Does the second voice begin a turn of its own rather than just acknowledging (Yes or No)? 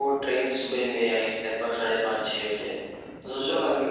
No